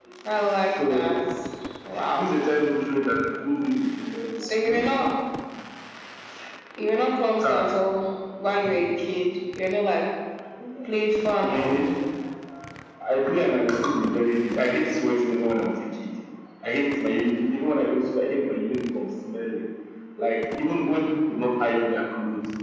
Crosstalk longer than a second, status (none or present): none